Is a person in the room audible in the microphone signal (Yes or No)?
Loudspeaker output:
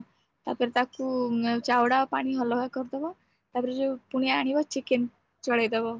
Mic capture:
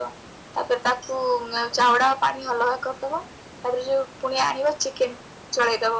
No